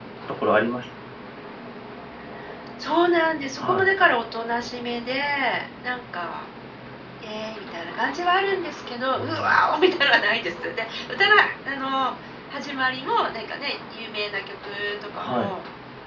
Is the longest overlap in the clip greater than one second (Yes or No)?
No